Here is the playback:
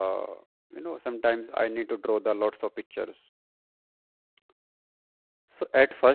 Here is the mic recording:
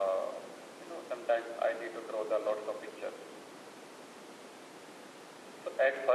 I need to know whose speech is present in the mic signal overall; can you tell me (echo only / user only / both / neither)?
echo only